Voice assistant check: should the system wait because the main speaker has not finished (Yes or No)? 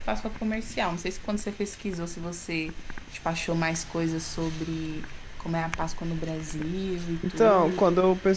No